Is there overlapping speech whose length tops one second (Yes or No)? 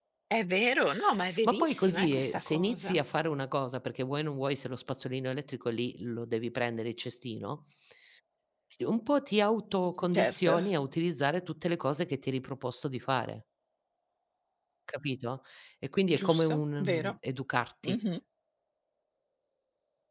Yes